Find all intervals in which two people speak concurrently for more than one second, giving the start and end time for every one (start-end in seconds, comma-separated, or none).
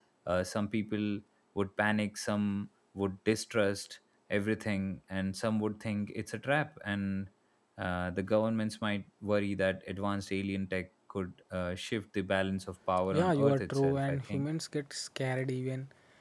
13.1-14.5